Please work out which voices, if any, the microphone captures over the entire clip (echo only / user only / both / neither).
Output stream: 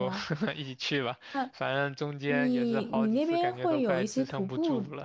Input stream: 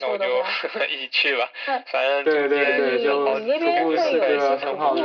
both